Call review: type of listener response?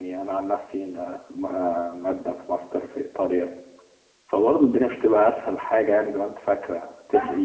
taking over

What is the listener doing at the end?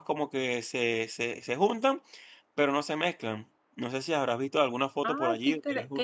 taking over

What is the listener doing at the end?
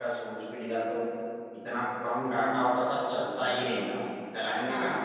listening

